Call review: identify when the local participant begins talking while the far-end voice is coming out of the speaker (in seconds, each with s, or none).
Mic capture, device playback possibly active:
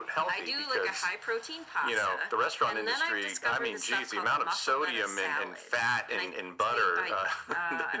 none